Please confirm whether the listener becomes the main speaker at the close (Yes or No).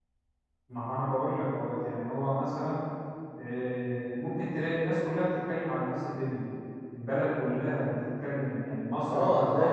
Yes